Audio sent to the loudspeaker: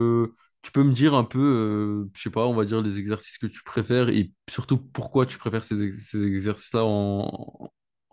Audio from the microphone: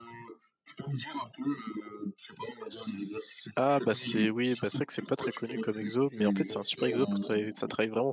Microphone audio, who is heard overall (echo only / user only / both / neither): both